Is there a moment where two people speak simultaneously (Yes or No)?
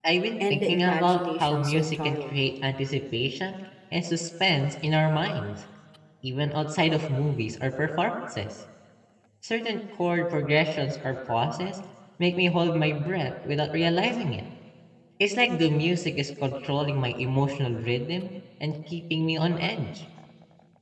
Yes